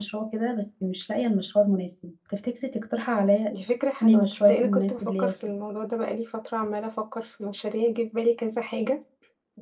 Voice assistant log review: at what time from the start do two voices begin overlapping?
4.0 s

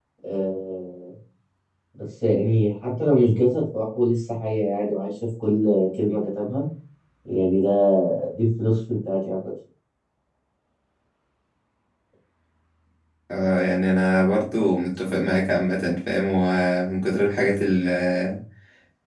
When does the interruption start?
none

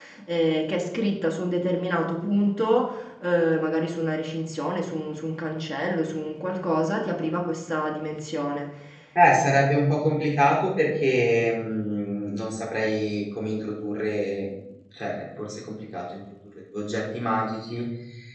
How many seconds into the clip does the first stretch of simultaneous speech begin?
none

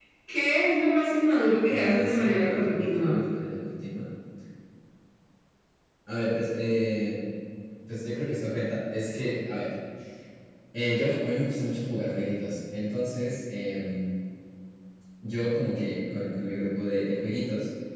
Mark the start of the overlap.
1.6 s

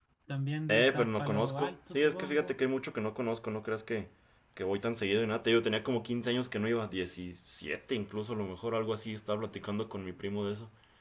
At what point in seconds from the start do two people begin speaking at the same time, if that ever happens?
0.7 s

